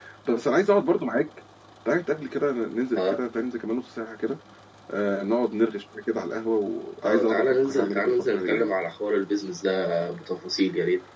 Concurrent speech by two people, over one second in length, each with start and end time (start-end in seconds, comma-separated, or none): 7.0-8.7